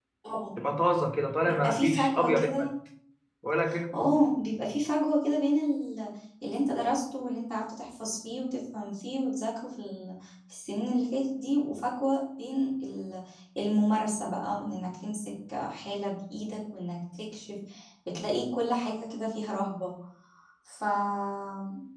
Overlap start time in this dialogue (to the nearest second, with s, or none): 1 s